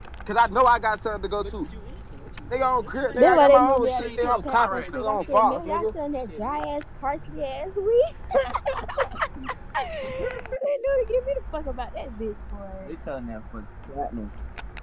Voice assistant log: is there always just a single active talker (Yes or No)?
No